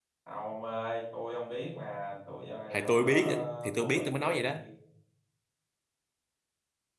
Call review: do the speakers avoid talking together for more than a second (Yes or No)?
No